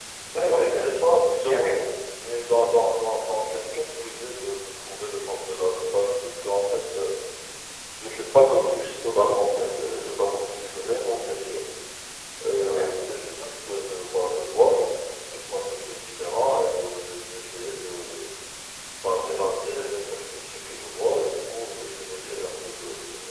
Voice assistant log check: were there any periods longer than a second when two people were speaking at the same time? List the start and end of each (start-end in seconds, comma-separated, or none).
0.5-1.8